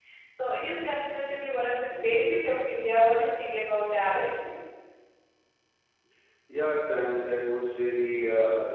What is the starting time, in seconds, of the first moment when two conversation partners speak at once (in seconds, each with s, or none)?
none